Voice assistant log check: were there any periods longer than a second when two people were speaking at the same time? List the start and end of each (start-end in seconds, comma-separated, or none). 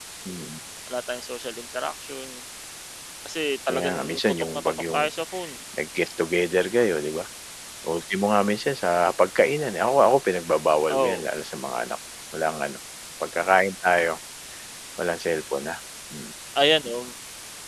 3.7-5.0